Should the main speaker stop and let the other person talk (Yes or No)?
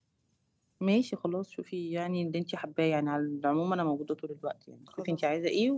No